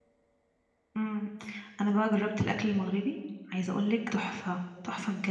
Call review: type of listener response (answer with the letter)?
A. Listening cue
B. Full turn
B